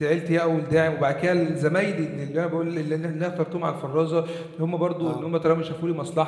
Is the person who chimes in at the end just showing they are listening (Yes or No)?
Yes